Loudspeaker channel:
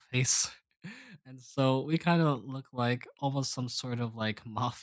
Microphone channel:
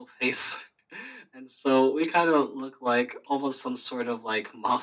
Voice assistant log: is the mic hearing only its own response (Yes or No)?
Yes